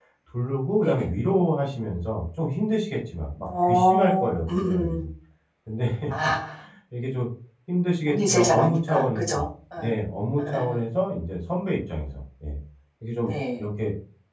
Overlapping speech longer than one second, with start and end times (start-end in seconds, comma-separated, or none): 3.5-5.1, 8.1-9.4